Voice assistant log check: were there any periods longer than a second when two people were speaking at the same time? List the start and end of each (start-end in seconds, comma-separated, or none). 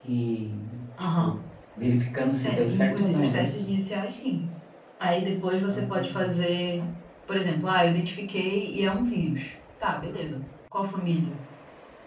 2.4-3.7